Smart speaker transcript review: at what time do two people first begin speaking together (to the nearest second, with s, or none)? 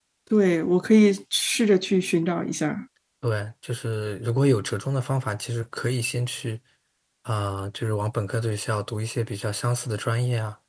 none